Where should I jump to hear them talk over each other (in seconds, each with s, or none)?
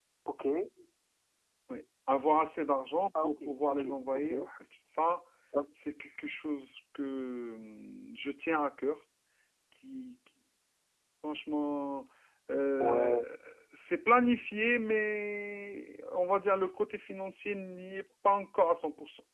3.2 s